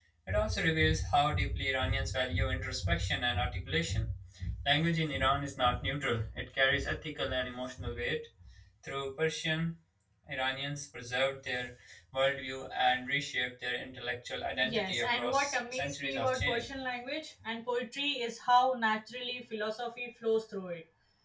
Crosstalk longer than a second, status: present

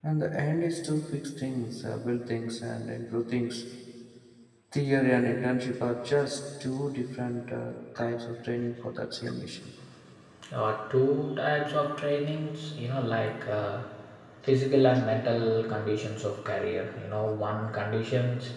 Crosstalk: none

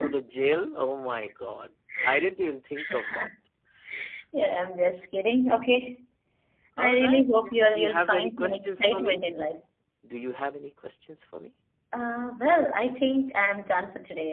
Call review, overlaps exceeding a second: present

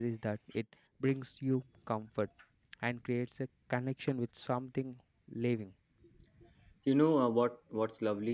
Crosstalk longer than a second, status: none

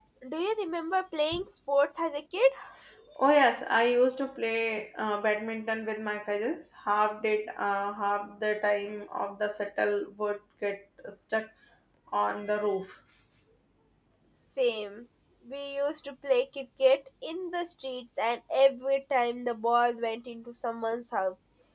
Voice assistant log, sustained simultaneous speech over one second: none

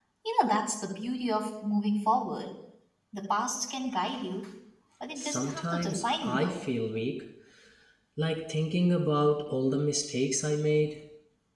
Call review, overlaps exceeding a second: present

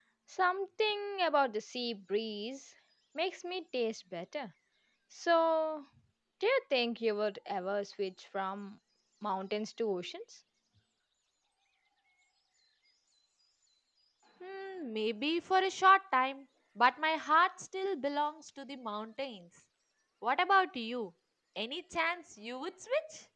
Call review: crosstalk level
none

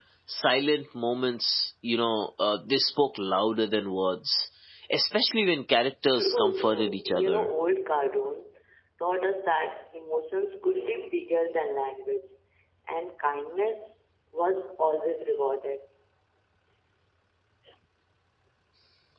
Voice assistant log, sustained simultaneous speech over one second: present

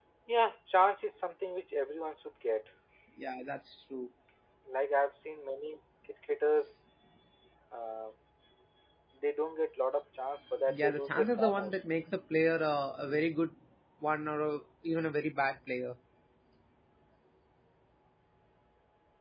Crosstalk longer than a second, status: present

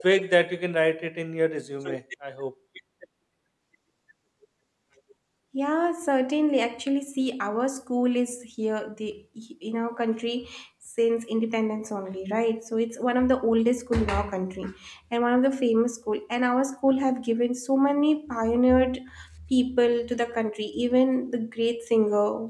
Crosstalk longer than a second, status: none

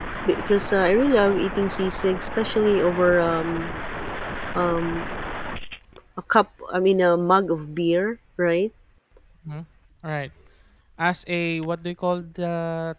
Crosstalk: none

